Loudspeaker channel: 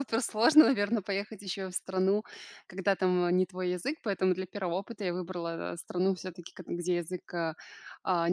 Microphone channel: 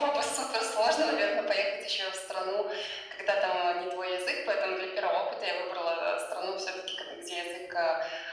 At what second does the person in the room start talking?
none

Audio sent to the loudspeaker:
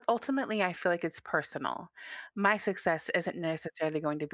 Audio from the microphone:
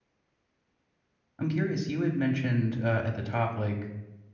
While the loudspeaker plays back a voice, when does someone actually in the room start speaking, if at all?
1.4 s

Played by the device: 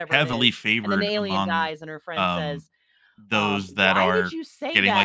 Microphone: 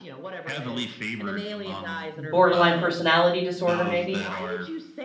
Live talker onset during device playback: 2.1 s

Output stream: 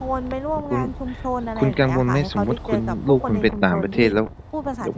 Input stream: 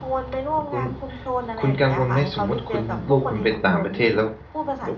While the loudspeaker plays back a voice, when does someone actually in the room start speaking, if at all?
none

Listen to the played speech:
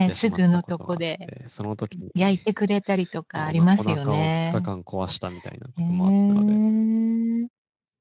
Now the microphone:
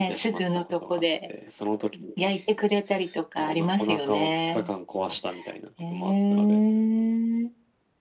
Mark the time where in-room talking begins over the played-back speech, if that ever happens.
none

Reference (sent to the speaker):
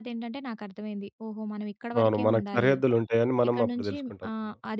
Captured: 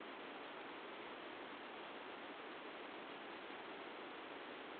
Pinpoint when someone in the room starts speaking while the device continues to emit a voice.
none

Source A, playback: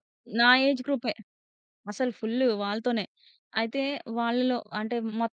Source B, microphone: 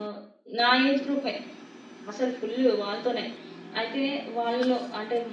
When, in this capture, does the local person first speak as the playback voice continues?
none

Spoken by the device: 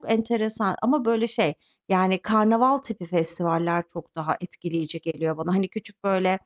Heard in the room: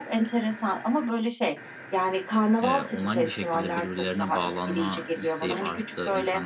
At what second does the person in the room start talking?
2.6 s

